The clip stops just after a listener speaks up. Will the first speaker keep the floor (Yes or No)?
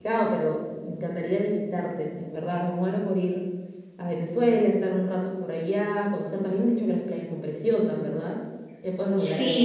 No